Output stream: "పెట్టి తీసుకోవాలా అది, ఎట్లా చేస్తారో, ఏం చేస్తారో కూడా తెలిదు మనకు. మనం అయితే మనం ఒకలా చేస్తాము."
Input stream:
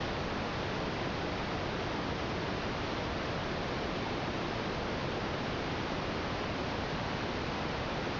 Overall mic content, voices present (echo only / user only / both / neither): neither